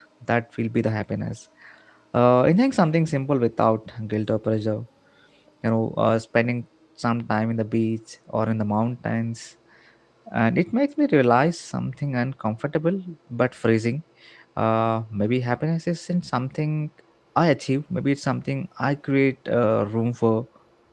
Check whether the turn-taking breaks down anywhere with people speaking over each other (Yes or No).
No